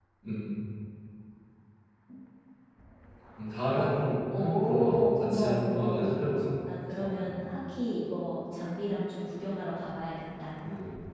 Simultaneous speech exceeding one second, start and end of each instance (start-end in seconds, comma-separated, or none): 4.3-6.2